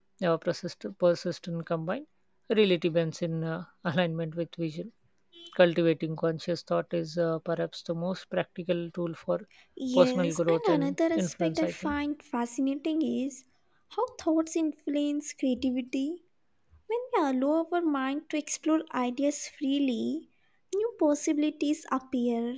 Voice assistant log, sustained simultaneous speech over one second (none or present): present